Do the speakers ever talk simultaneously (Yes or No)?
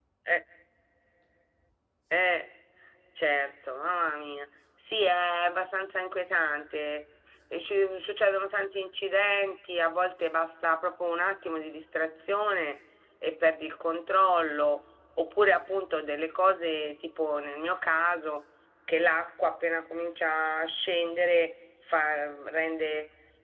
No